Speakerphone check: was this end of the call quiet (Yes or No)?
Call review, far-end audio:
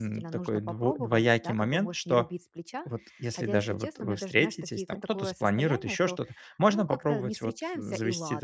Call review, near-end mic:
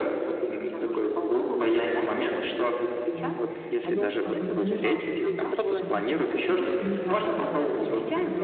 No